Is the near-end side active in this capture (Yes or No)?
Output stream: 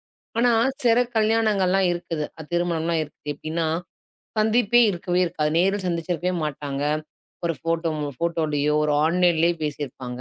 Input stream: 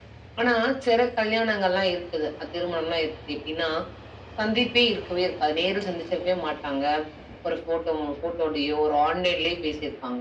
No